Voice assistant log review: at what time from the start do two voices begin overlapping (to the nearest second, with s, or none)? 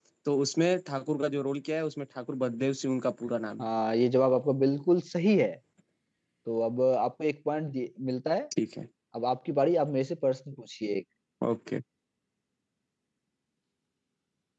none